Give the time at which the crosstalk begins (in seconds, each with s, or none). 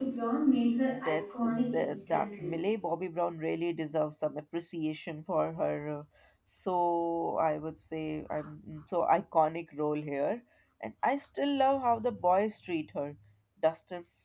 1.0 s